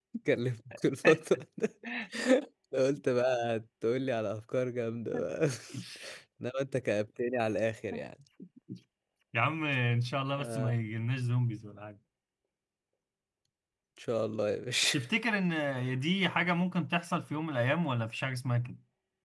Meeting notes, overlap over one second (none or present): none